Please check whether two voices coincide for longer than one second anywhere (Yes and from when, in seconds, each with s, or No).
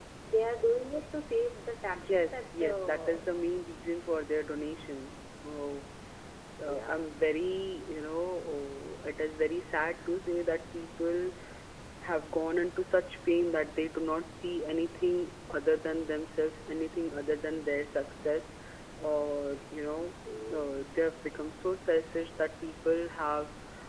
Yes, from 1.9 s